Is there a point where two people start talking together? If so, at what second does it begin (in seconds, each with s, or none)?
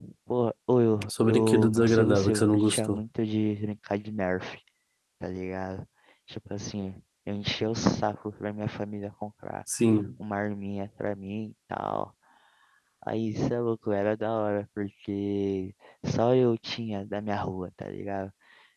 1.1 s